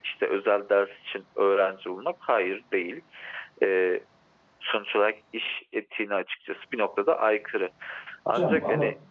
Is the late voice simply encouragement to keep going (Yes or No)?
No